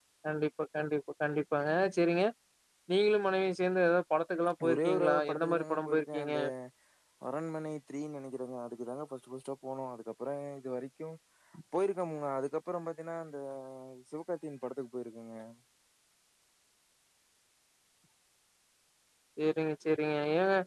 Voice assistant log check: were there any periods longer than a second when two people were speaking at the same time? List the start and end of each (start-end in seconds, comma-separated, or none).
4.7-6.3